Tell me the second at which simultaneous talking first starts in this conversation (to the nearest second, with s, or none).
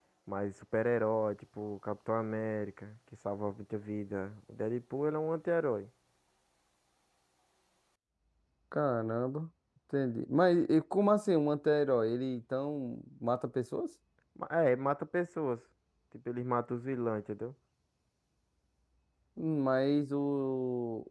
none